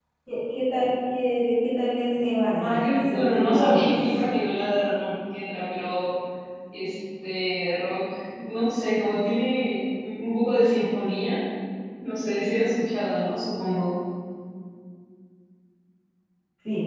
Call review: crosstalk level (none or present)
present